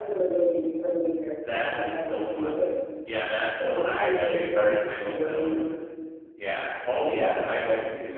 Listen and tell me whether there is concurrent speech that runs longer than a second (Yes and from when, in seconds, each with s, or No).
Yes, from 1.5 s